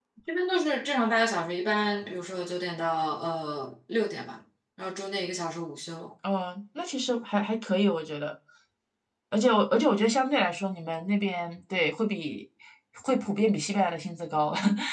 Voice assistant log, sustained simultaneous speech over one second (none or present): none